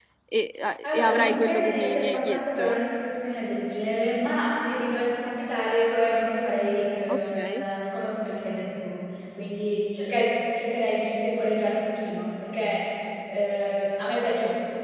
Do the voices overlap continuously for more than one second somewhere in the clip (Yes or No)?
Yes